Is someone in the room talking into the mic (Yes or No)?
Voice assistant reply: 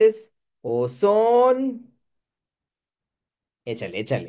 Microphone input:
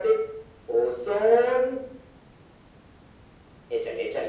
No